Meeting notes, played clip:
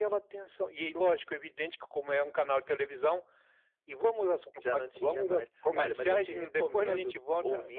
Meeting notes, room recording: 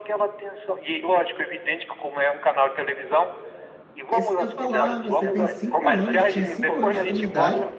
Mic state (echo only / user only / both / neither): both